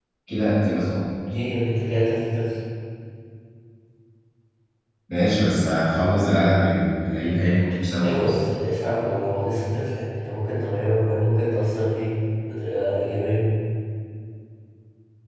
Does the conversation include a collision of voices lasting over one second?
No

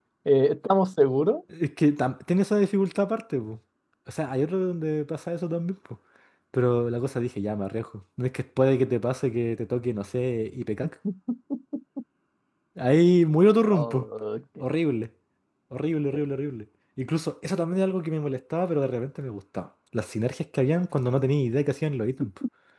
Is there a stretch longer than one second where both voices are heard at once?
No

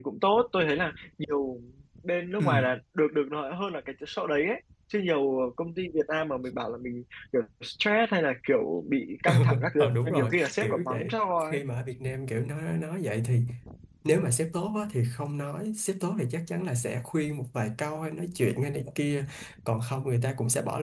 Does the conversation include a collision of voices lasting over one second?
Yes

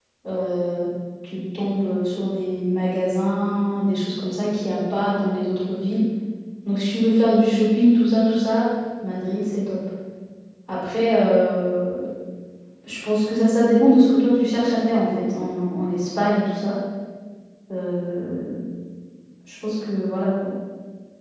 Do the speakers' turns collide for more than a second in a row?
No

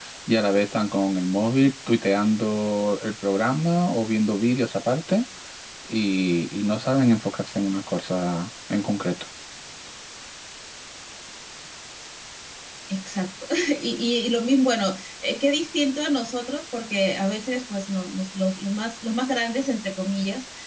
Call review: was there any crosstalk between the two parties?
No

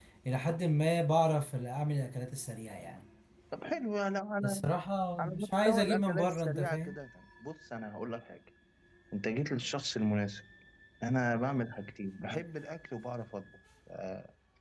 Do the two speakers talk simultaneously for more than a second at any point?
Yes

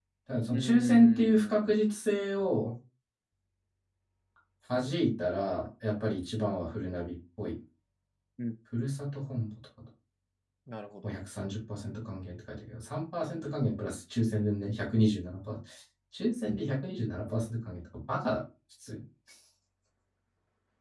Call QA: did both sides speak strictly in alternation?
No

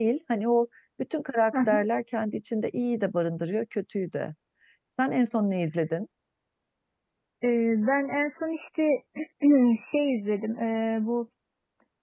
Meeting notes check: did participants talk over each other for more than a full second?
No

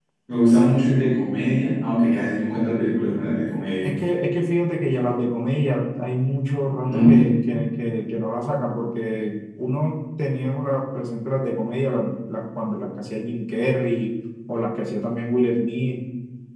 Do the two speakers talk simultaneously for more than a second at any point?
No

